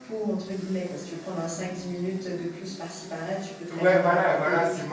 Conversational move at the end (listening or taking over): taking over